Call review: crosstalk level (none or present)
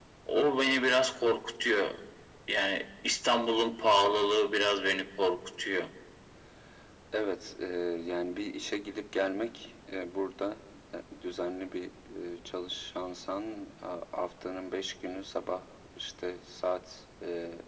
none